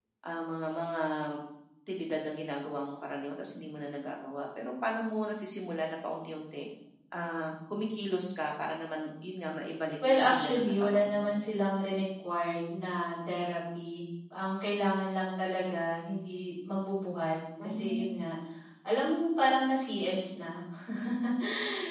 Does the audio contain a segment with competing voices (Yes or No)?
Yes